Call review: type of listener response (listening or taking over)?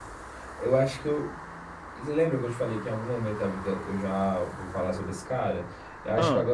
listening